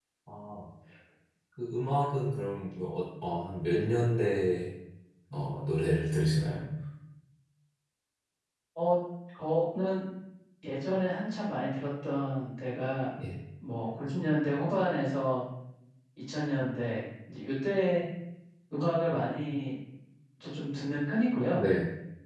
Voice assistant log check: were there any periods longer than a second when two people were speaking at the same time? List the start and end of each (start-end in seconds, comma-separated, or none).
none